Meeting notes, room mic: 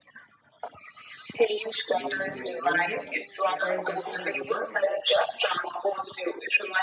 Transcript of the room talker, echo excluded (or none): making your own bread? I find that so rewarding.